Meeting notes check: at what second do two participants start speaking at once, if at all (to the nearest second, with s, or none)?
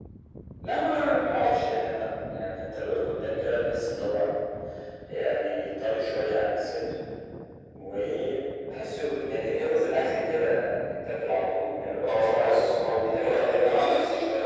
12 s